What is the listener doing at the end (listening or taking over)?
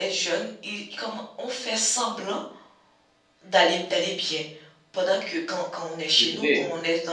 listening